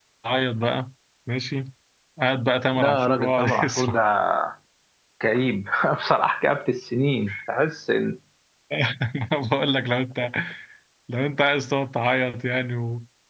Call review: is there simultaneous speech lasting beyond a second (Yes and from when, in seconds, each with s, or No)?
Yes, from 2.7 s